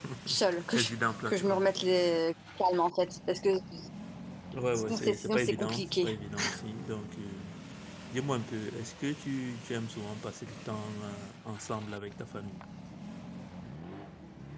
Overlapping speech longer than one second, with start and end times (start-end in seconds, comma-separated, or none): 4.7-6.1